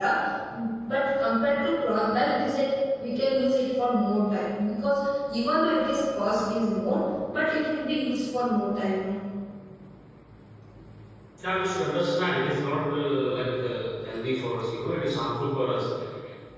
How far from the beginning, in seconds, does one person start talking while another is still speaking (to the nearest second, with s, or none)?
none